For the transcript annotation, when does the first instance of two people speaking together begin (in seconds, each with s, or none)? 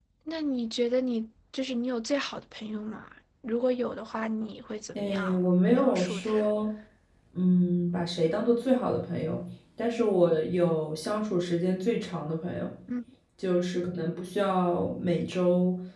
5.0 s